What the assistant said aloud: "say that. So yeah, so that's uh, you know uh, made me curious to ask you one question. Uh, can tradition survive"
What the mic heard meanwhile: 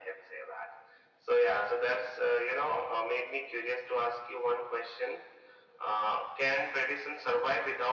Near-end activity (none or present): none